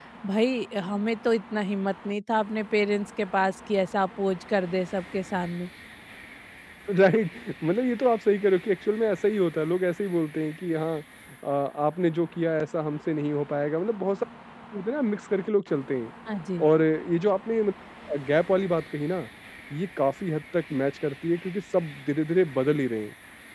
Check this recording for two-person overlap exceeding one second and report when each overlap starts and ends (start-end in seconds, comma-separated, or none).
none